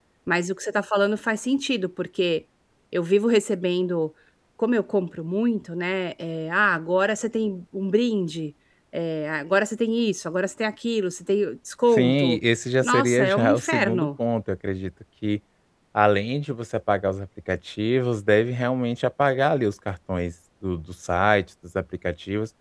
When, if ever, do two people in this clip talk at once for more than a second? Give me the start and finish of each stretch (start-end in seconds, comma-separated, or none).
12.8-14.1